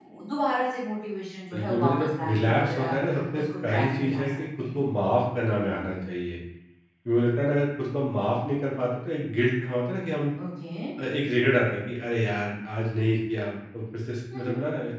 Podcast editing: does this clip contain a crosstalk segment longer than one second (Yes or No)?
Yes